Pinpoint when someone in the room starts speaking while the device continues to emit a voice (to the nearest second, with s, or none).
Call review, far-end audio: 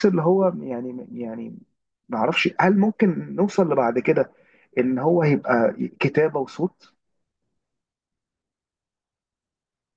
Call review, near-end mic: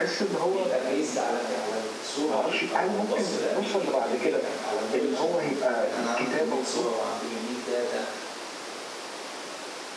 0 s